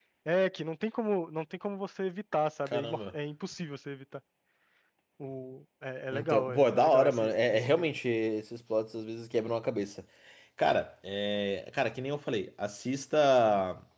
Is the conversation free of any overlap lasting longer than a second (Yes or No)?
No